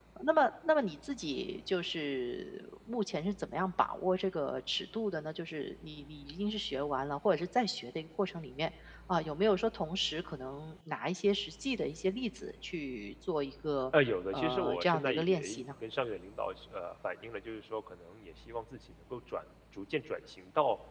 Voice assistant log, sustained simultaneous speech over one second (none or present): present